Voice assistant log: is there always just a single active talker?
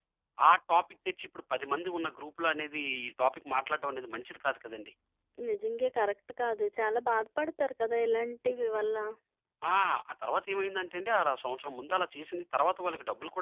Yes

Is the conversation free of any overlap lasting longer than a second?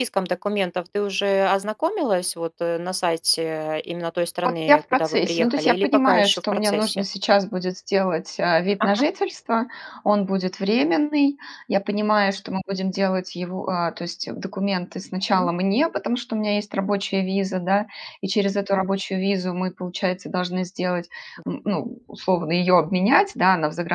No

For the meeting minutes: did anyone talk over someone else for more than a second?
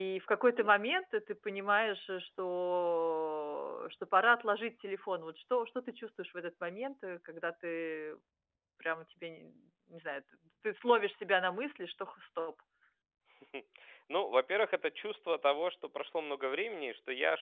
No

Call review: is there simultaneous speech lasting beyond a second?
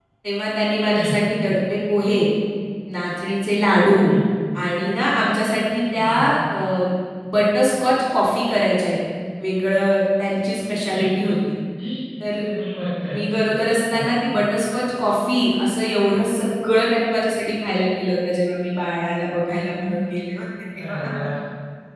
No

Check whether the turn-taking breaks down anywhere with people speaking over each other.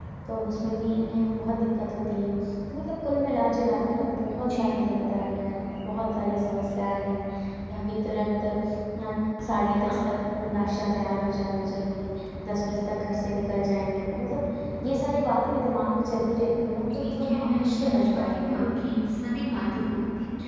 Yes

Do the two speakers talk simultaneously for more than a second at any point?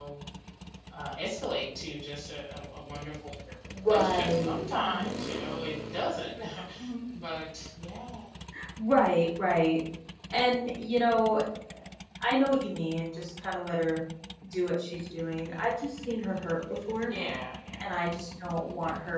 Yes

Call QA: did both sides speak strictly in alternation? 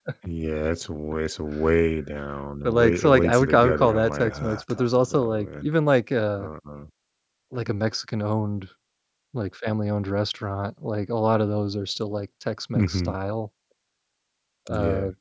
No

